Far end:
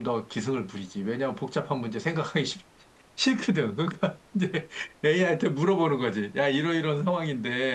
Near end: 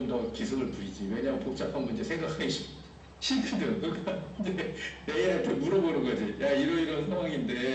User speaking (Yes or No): No